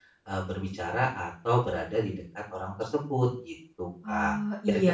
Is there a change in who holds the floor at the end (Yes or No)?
Yes